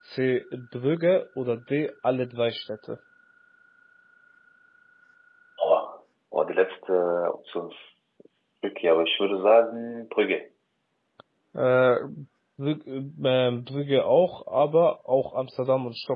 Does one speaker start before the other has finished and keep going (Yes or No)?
No